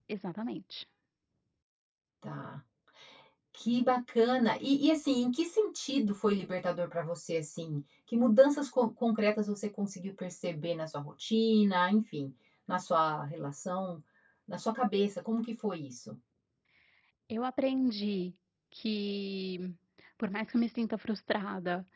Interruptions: none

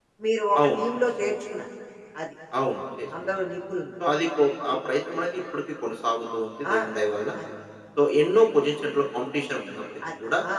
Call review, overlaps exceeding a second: none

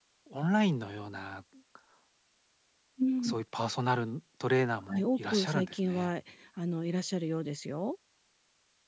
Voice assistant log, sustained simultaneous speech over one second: present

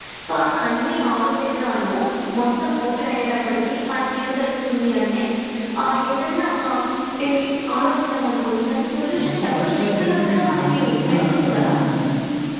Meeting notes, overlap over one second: present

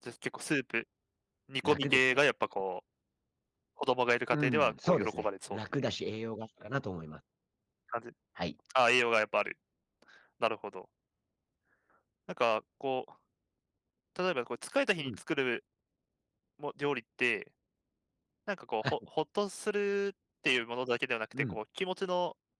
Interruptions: present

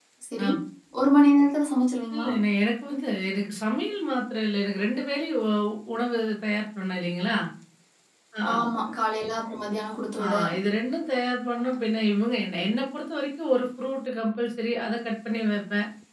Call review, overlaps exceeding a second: none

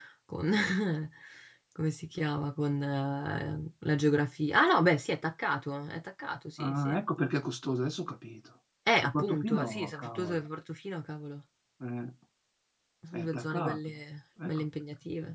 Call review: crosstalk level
present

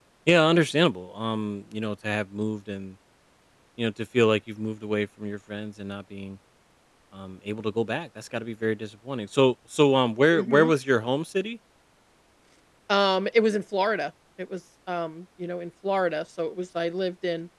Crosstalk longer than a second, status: none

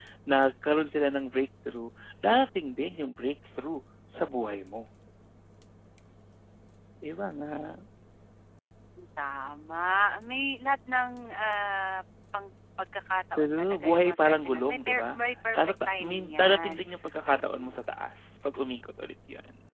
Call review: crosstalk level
present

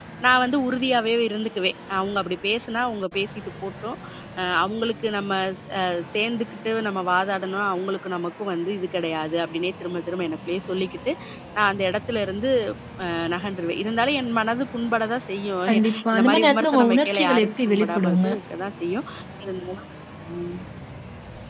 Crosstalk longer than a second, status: present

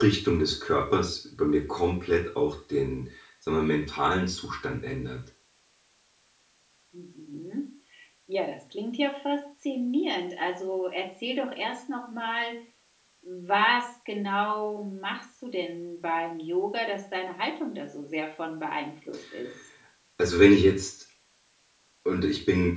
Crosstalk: none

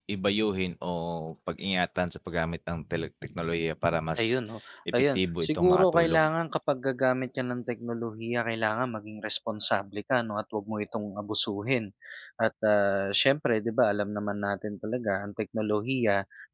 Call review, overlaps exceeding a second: present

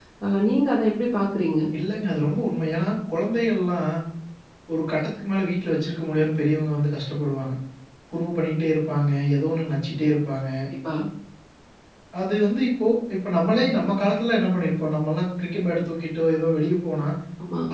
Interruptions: none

